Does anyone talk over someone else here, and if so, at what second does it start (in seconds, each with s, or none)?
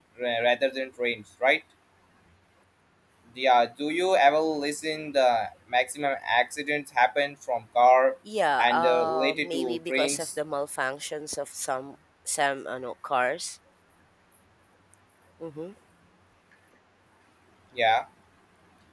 8.6 s